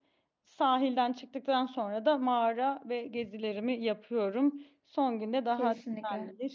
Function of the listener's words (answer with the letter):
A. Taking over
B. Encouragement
B